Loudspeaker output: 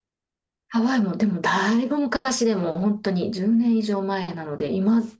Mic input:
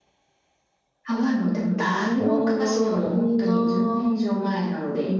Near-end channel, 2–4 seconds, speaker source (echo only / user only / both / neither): both